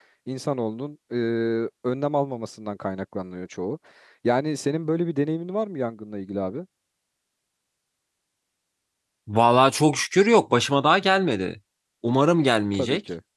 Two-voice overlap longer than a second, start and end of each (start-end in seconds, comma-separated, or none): none